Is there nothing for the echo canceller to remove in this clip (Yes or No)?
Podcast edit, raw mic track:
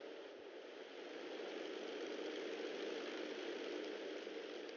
Yes